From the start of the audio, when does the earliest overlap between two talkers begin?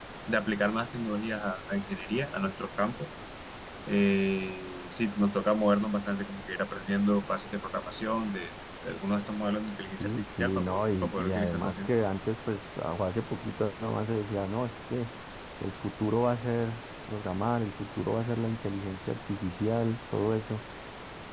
10.0 s

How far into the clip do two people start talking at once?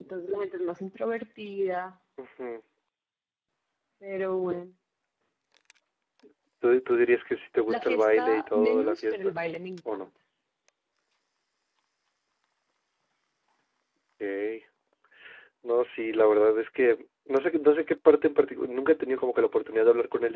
7.7 s

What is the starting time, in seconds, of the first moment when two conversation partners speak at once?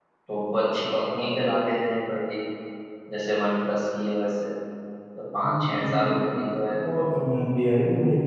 5.4 s

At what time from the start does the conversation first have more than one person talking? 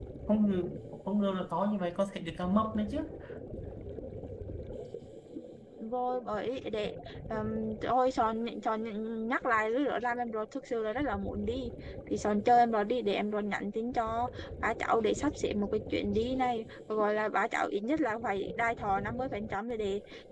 none

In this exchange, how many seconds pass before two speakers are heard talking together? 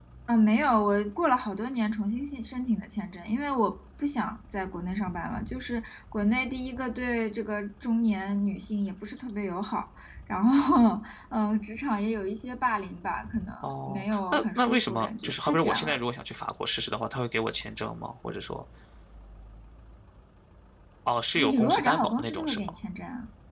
13.6 s

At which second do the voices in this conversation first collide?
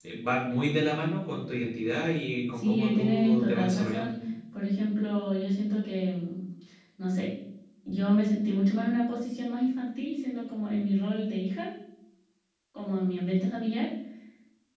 2.6 s

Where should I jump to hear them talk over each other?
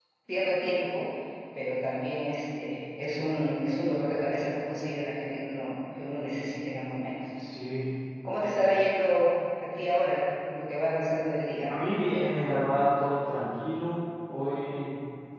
none

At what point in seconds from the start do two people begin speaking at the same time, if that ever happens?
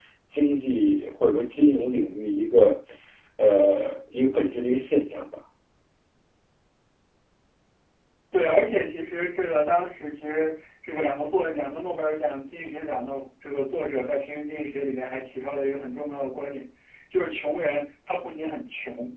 none

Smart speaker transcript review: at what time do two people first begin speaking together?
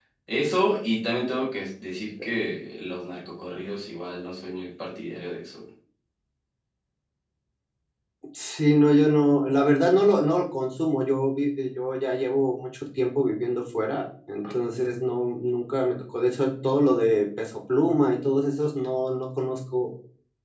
none

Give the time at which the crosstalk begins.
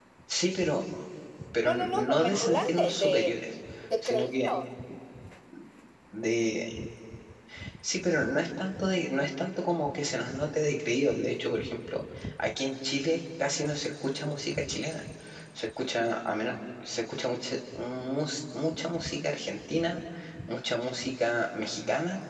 1.6 s

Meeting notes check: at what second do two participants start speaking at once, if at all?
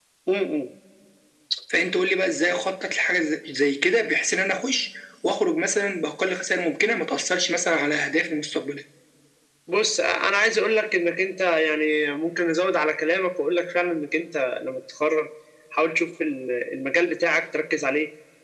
none

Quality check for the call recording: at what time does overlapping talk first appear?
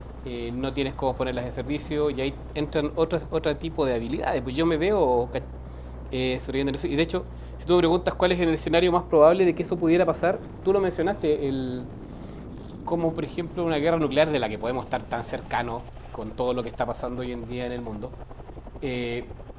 none

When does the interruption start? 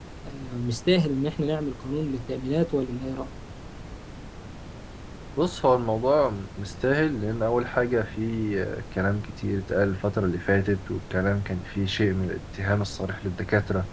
none

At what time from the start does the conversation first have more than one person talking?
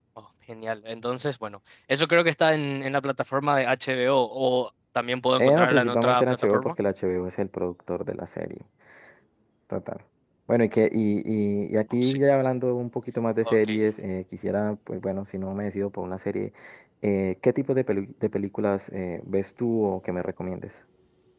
5.4 s

